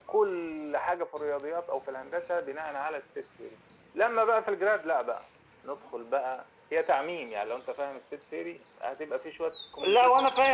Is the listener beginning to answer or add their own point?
Yes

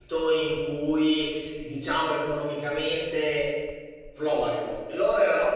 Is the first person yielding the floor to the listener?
No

